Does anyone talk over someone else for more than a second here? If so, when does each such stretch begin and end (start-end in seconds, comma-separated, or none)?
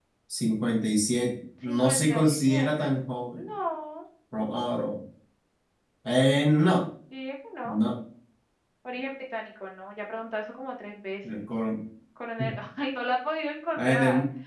1.6-2.9